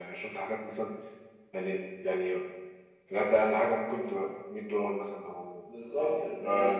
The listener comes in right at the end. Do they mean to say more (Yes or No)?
Yes